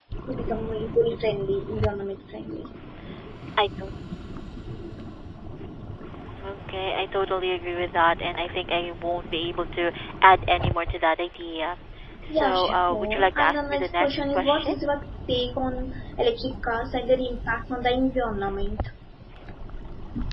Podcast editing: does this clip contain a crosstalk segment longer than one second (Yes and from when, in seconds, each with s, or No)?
Yes, from 12.3 s